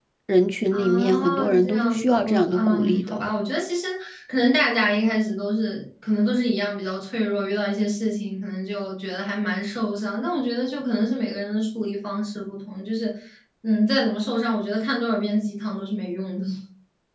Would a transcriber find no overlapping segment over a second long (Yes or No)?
No